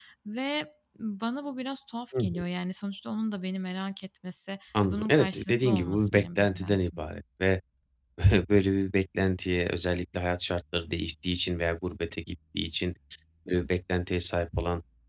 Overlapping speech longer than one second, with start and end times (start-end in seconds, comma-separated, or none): 4.8-7.0